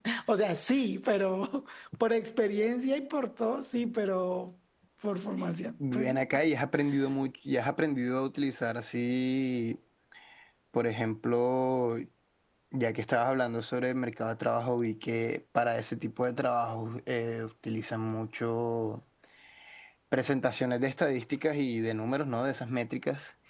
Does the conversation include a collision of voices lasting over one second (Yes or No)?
No